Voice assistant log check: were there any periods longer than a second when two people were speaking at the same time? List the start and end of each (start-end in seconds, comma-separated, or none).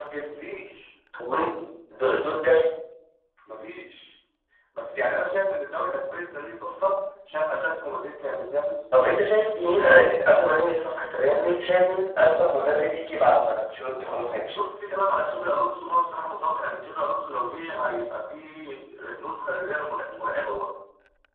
none